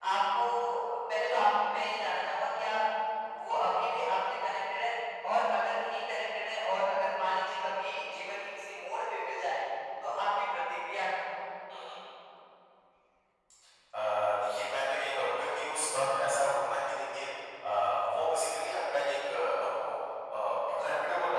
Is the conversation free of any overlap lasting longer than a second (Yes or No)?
Yes